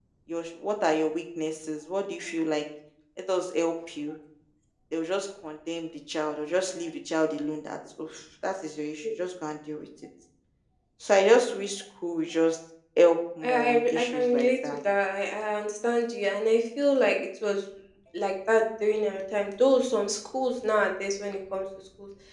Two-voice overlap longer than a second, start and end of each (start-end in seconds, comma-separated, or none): 13.4-14.8